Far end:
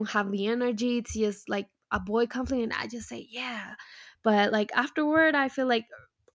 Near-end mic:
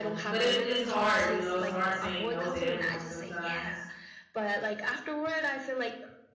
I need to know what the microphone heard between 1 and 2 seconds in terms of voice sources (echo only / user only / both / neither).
both